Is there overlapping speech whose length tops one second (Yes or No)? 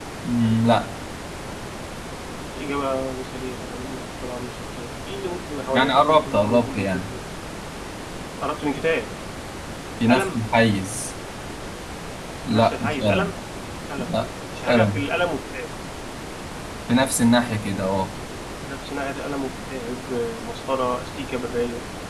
Yes